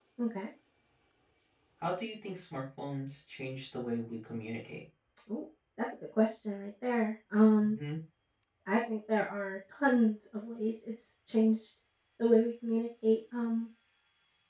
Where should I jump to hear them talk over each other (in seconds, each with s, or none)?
none